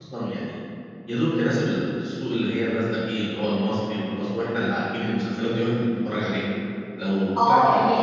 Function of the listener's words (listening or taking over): taking over